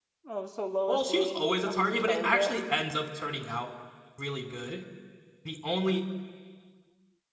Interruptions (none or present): present